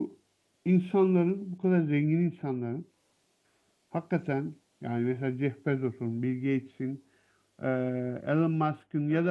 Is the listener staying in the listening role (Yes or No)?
Yes